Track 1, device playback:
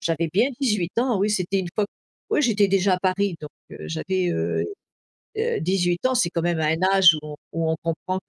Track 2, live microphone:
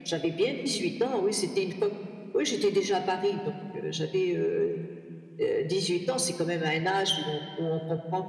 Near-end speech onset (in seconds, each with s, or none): none